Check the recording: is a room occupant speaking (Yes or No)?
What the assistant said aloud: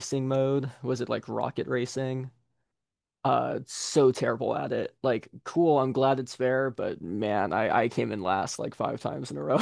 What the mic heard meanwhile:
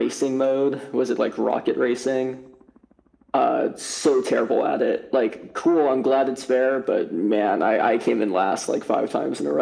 No